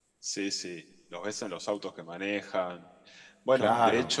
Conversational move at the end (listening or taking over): listening